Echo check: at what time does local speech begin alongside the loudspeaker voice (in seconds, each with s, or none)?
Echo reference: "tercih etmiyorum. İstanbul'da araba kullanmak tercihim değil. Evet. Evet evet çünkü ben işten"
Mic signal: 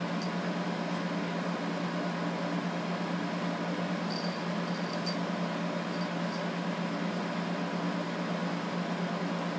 none